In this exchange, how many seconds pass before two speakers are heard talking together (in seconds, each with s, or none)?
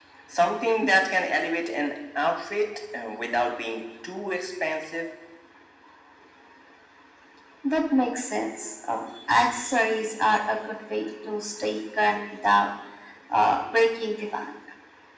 none